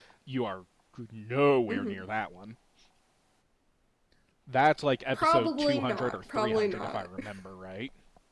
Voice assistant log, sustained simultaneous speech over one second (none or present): present